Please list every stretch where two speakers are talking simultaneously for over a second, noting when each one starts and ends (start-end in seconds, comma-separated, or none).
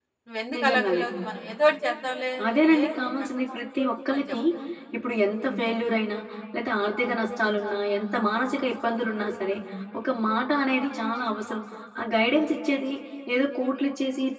2.5-4.4